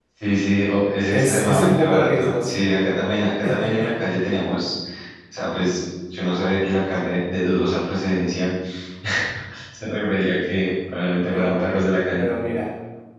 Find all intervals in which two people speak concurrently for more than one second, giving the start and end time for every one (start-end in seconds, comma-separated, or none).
1.1-2.5